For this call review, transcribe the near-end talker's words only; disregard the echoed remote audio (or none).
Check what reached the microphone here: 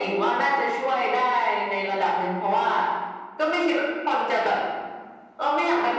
none